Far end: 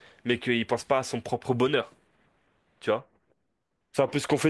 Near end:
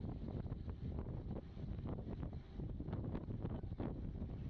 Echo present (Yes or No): No